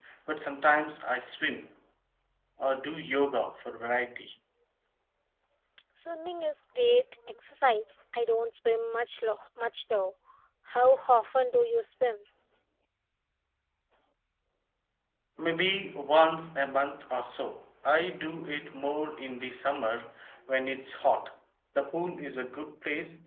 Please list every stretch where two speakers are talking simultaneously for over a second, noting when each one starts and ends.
none

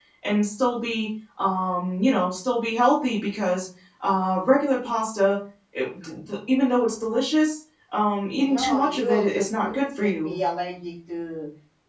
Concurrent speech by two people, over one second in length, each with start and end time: 8.4-10.3

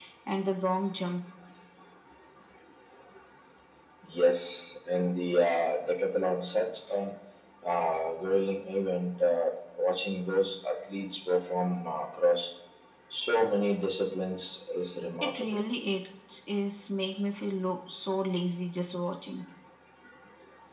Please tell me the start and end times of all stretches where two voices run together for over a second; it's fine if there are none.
none

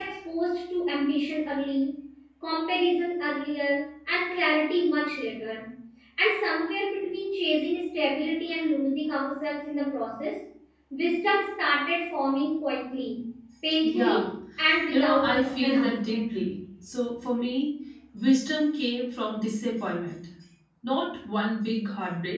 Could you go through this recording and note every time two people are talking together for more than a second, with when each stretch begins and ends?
14.9-16.2

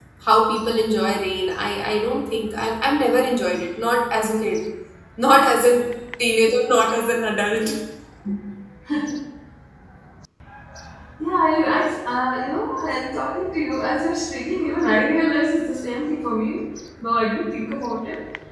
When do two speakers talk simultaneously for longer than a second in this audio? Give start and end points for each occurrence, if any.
none

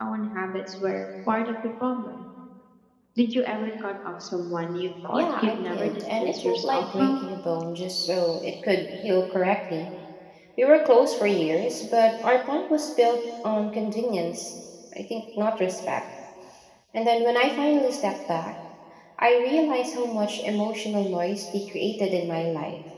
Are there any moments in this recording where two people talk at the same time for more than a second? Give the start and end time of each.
5.1-7.2

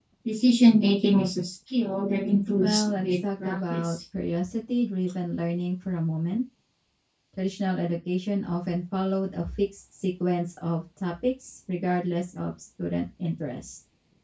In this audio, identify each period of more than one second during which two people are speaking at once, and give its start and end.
2.6-3.9

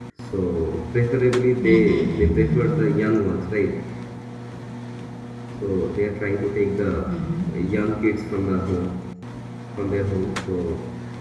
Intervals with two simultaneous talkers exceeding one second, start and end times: 1.6-2.8

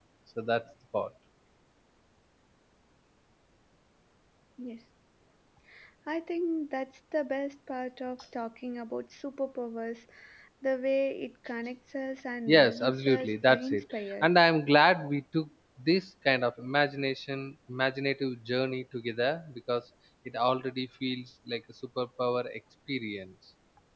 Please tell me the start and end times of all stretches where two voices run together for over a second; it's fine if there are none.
12.5-14.3

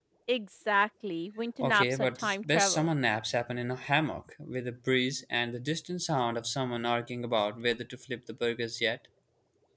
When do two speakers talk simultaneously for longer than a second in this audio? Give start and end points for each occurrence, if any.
1.6-2.9

